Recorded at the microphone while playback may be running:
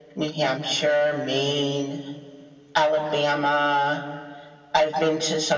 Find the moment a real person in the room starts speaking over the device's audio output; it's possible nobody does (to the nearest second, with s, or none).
none